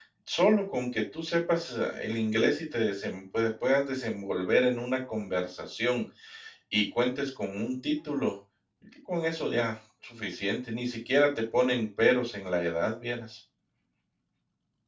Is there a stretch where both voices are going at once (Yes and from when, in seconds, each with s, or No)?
No